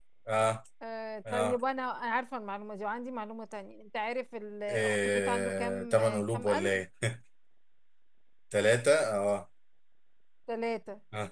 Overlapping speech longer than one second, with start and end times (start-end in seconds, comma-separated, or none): 4.7-6.8